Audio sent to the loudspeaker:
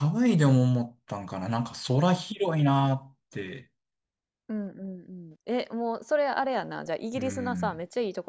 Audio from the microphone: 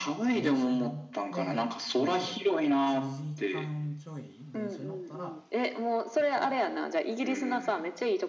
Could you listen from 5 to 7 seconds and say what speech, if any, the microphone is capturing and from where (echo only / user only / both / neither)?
both